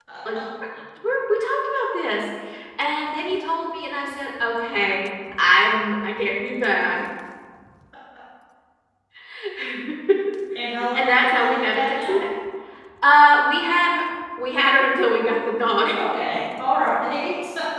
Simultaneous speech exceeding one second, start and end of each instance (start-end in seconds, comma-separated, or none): 10.9-12.2